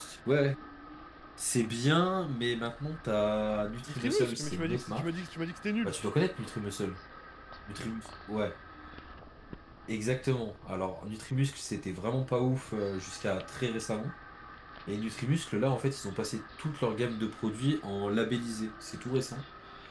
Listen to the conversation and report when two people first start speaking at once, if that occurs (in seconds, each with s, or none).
3.9 s